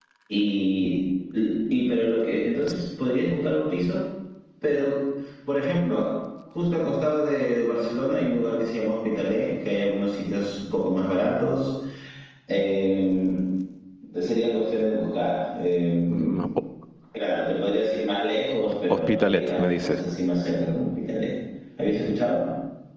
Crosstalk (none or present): present